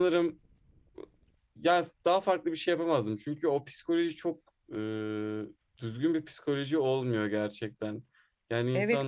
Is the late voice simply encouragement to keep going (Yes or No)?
No